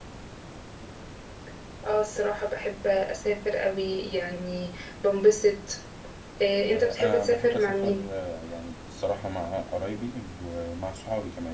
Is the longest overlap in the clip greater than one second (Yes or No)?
Yes